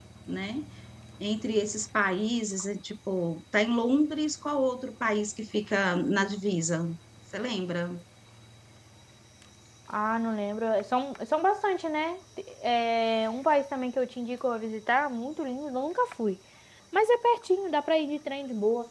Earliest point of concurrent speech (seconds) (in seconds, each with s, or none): none